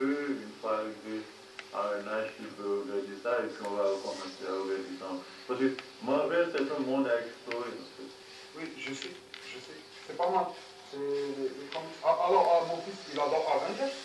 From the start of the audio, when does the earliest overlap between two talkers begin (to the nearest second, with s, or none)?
none